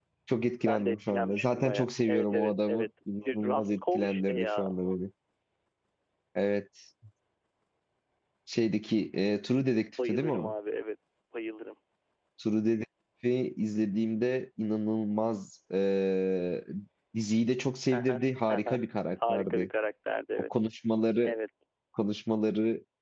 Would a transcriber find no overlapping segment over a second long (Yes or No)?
No